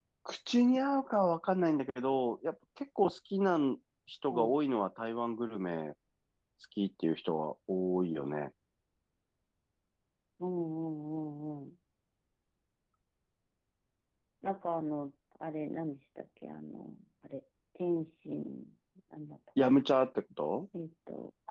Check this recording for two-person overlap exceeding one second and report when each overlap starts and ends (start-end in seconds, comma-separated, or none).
none